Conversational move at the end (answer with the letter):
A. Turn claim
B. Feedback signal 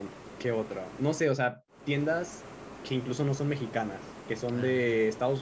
B